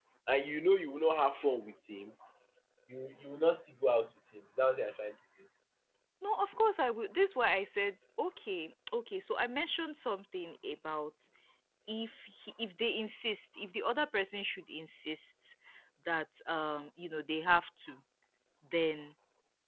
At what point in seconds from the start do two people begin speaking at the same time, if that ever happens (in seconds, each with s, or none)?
none